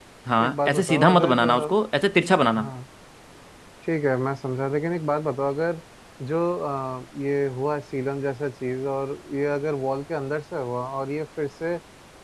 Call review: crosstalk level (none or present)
present